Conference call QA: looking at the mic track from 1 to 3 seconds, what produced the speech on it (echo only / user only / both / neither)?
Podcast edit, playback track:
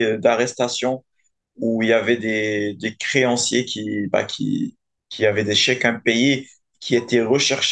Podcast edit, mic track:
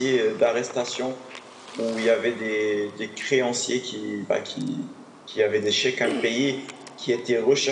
echo only